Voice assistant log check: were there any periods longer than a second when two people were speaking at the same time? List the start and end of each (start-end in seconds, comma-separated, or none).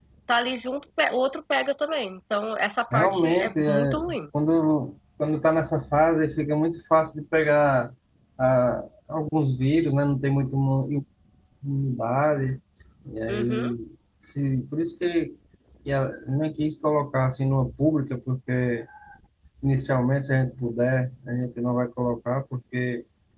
2.9-4.2